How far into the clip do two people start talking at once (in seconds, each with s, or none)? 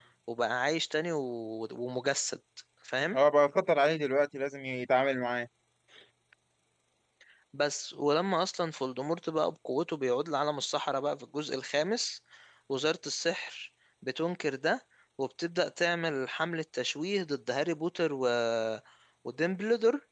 none